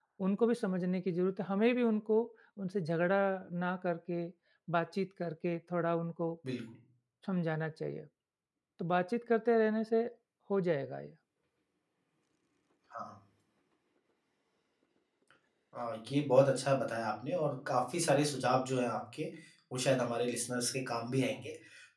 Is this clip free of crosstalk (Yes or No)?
Yes